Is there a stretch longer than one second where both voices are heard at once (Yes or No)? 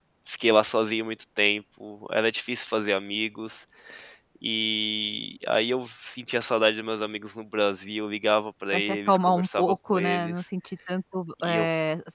Yes